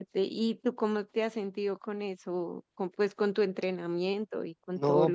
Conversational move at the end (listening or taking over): taking over